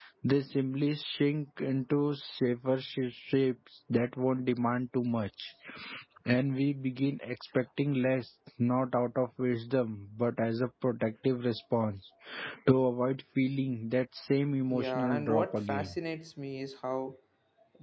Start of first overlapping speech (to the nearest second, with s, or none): 15 s